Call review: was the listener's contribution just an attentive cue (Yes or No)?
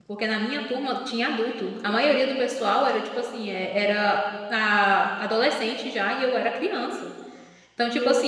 Yes